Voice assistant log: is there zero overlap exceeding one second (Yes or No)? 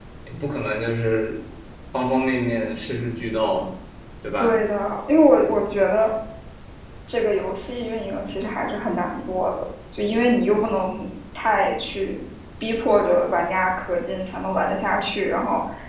Yes